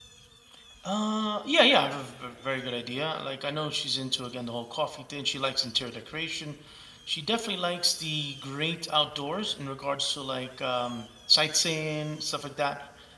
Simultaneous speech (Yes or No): No